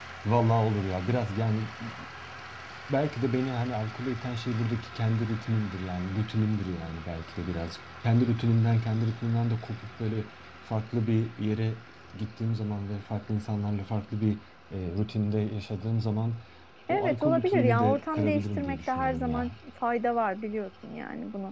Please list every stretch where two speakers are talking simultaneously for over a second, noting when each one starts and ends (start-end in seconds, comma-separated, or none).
16.9-19.5